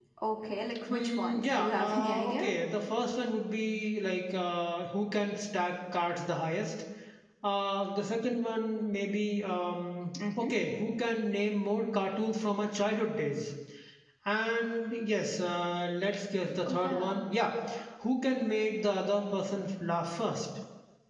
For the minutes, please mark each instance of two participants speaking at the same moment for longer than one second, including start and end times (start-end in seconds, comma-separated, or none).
0.9-2.5